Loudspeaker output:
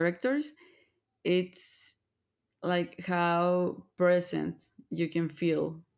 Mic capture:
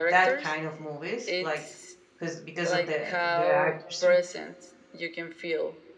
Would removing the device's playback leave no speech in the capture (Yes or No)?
No